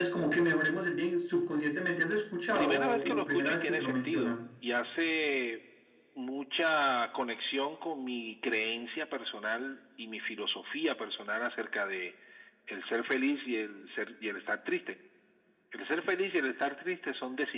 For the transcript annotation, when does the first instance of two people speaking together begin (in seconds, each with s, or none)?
2.6 s